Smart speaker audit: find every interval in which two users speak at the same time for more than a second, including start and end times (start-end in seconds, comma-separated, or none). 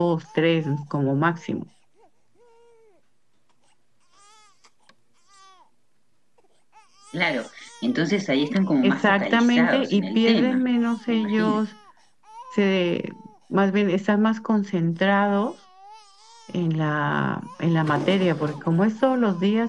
8.8-10.6